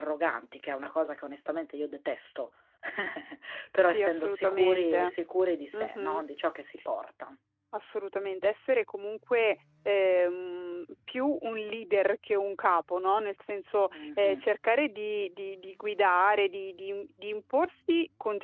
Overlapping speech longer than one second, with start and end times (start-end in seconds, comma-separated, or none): 3.9-5.1